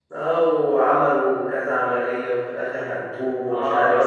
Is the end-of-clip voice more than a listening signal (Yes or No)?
Yes